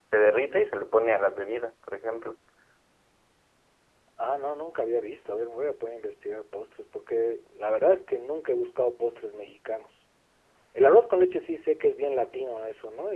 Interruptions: none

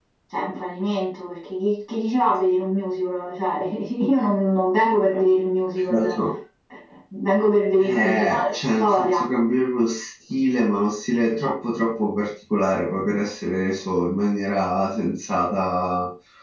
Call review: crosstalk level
present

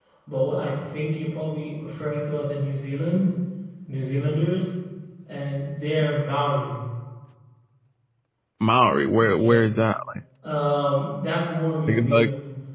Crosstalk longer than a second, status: none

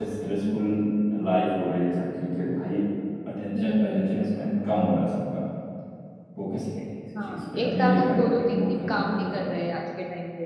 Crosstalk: present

